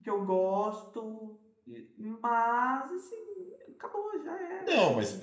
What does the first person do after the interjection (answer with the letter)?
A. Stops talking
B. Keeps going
A